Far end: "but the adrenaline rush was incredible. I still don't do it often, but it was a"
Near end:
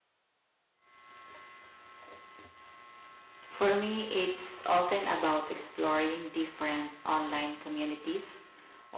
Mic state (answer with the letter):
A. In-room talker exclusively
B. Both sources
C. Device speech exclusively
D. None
A